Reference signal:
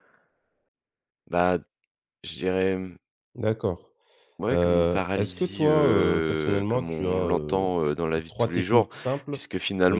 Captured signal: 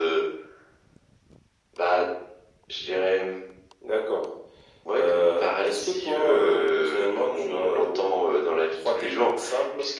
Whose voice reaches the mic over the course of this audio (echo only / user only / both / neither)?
echo only